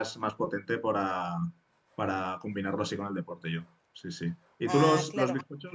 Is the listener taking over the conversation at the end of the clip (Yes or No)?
No